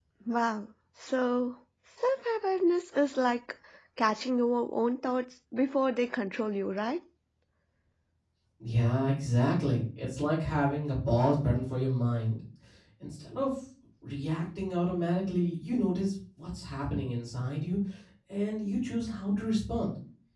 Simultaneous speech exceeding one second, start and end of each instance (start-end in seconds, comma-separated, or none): none